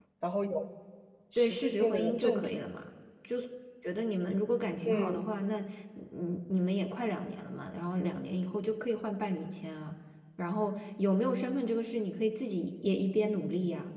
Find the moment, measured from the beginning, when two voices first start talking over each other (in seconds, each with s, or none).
1.4 s